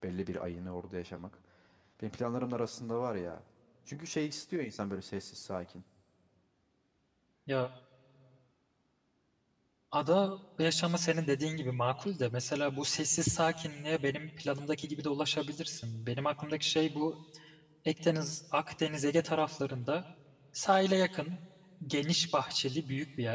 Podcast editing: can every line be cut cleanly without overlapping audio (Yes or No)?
Yes